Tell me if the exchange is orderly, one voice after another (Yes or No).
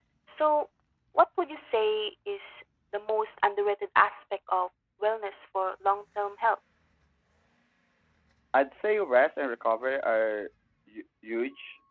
Yes